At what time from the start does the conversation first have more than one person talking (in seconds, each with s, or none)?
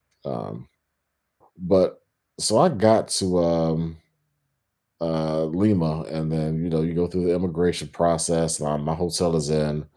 none